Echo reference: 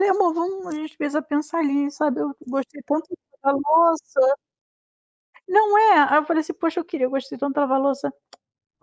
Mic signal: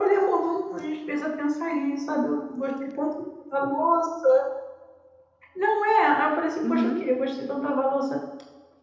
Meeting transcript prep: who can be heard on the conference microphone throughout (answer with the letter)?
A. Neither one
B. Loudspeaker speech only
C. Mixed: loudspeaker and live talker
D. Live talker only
C